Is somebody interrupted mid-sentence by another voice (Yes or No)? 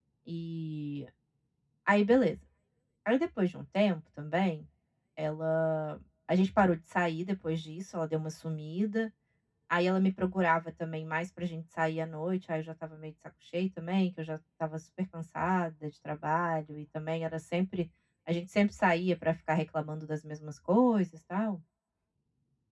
No